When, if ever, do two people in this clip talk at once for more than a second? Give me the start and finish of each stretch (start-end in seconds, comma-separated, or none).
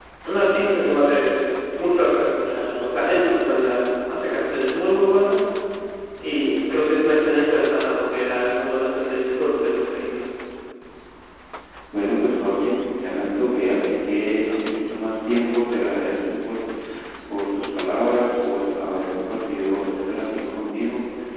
none